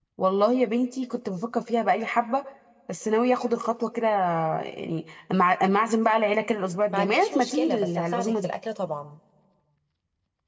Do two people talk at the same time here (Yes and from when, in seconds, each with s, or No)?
Yes, from 6.9 s